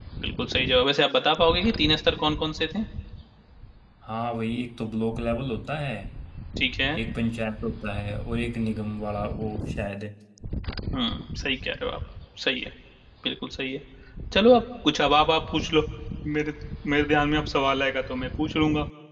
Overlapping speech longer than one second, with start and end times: none

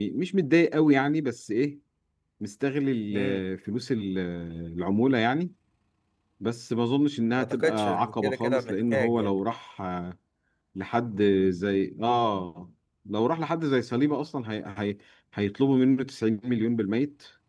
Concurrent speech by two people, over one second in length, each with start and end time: 7.4-9.4

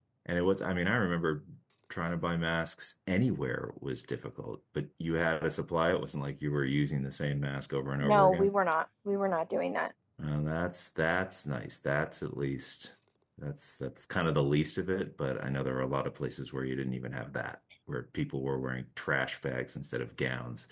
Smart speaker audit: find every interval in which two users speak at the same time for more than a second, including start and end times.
none

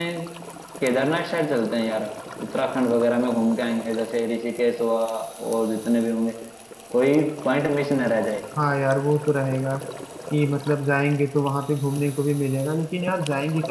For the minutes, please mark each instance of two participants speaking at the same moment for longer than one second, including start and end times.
none

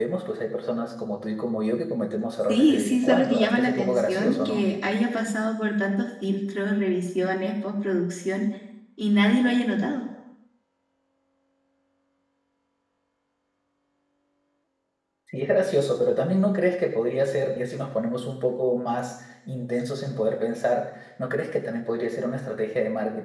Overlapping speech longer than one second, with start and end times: 2.5-4.7

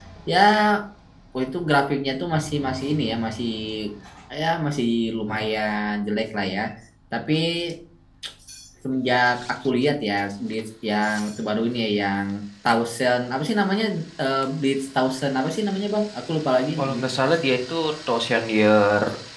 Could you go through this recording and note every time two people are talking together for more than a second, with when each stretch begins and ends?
none

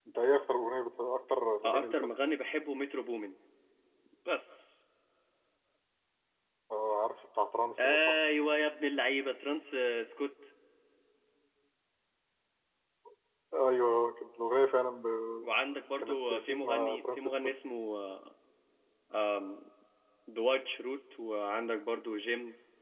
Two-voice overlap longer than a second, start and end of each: 16.0-17.4

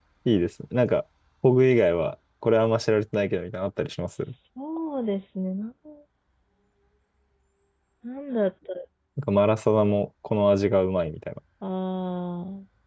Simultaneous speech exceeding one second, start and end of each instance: none

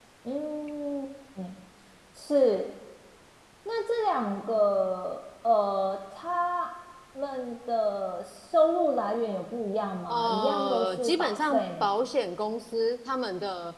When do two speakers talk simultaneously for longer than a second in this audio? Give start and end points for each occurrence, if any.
10.1-12.0

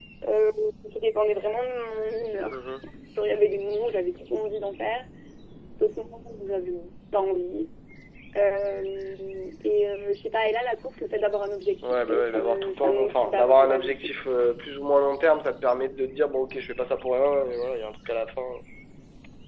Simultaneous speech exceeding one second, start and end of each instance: 11.8-14.1

